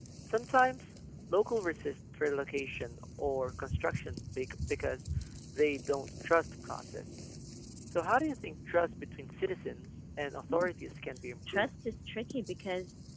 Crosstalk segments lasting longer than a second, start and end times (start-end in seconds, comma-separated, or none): none